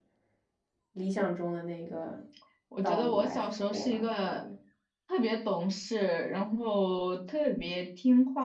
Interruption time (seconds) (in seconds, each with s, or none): 2.8 s